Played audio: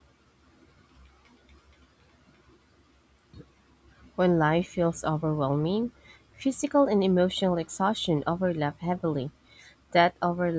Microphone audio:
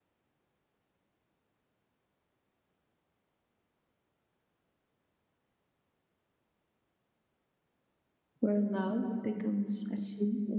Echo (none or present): none